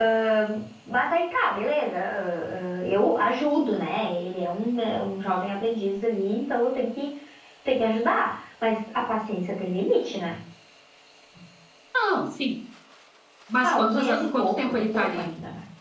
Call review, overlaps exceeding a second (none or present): present